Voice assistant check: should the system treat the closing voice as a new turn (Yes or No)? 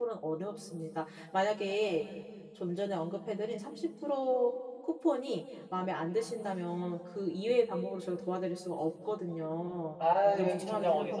Yes